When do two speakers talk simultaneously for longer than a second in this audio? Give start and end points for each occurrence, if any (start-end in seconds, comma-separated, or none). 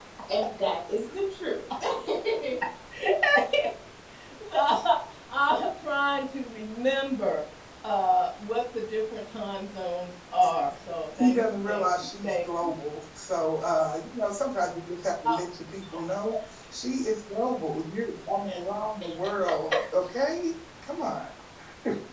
11.2-12.8